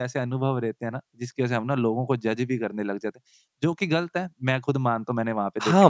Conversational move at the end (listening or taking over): taking over